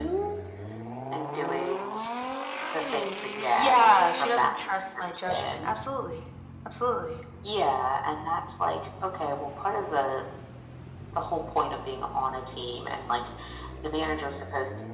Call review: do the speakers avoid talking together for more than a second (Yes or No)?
No